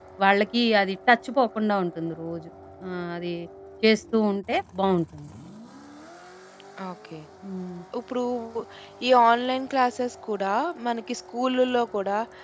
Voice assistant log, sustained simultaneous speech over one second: none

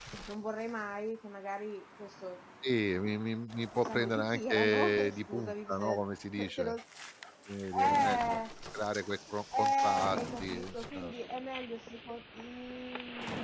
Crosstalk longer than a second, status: present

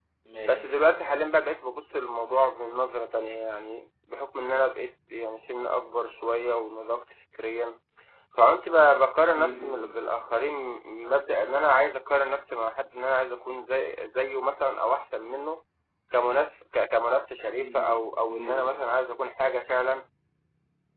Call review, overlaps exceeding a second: none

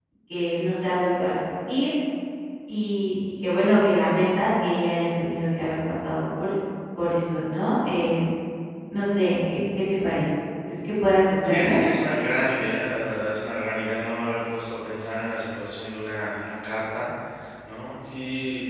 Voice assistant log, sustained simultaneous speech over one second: none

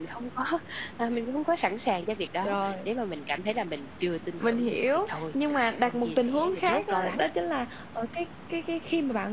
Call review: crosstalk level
present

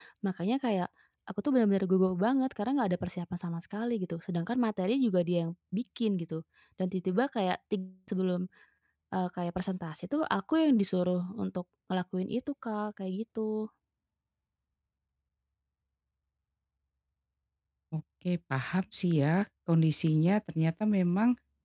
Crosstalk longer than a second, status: none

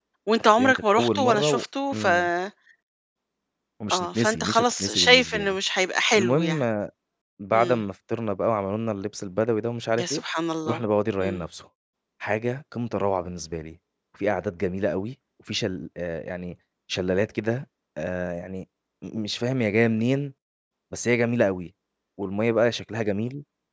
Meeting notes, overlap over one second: present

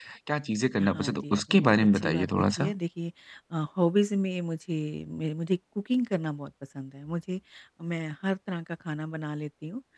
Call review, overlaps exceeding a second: present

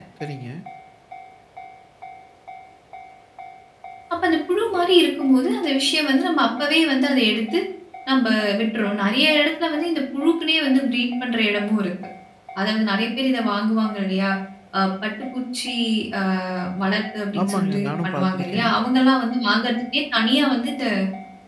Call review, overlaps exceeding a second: present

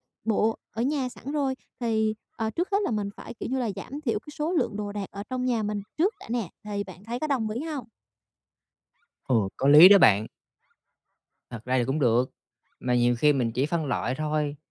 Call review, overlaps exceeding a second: none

